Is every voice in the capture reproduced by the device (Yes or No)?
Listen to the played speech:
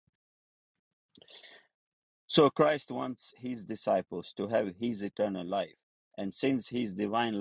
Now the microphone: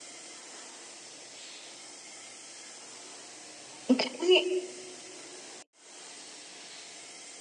No